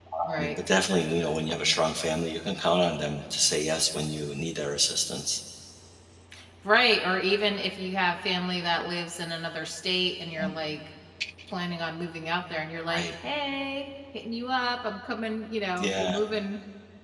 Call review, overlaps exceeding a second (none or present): none